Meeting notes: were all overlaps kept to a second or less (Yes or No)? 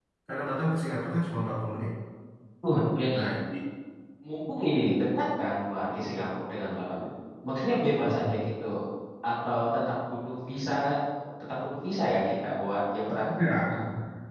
Yes